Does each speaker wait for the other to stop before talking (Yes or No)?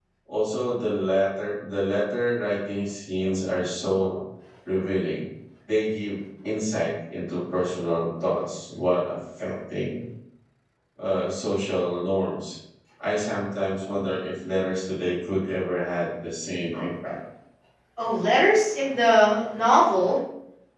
Yes